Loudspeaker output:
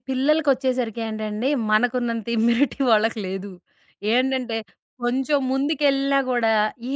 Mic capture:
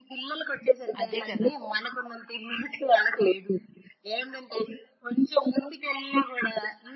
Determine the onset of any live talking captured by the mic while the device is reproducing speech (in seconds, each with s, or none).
1.0 s